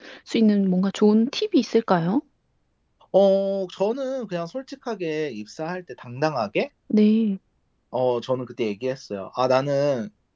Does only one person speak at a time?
Yes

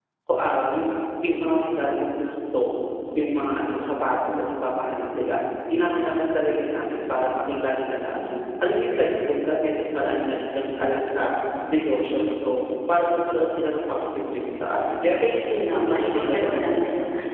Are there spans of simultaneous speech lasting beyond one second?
Yes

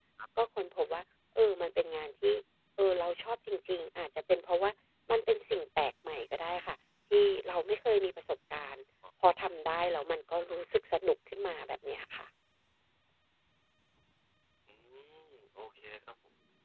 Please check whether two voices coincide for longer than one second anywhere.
No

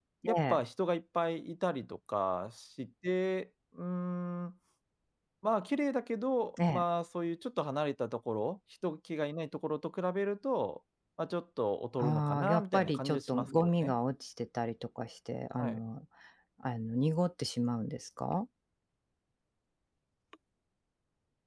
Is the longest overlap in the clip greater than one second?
Yes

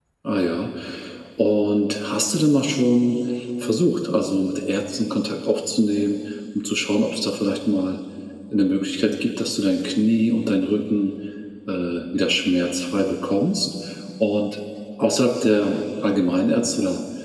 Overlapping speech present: No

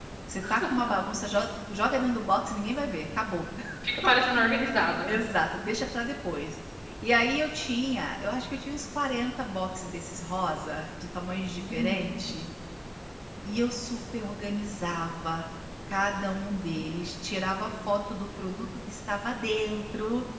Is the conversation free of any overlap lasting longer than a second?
Yes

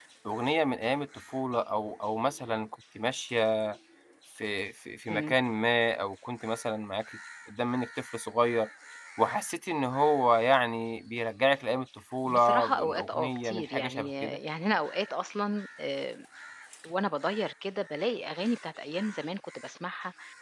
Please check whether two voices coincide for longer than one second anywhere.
Yes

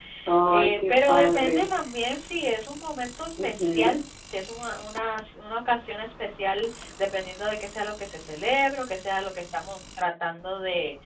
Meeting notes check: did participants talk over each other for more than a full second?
Yes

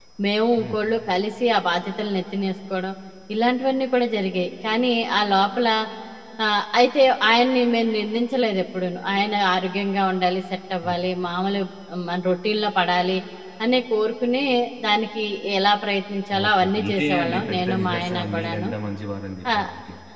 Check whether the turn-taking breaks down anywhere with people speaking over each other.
Yes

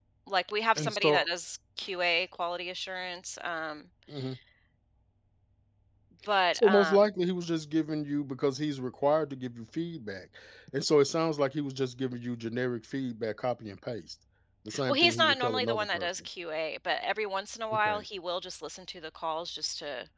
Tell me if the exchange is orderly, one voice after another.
No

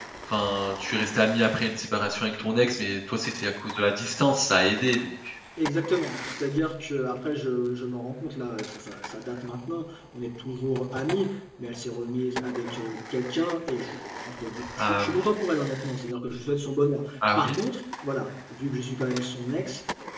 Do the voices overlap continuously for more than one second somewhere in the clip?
No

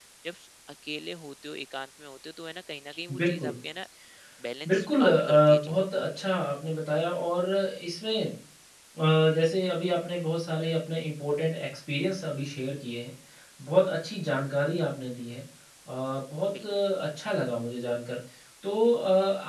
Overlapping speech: Yes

